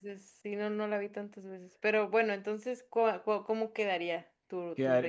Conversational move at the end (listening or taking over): taking over